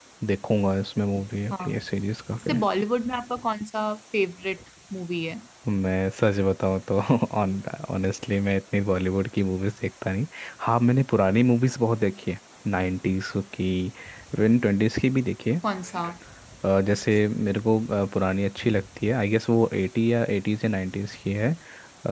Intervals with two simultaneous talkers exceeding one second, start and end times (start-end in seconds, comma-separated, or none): none